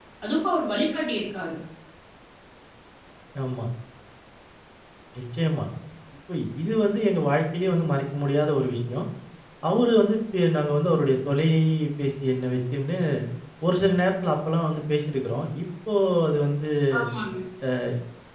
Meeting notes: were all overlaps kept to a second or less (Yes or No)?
Yes